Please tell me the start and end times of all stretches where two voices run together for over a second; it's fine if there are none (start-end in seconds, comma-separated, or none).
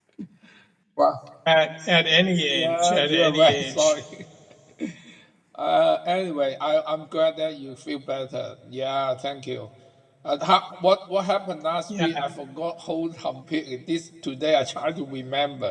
2.5-3.9